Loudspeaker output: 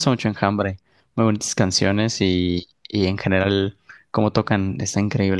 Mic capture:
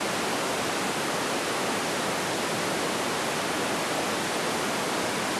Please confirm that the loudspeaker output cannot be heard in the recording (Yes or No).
Yes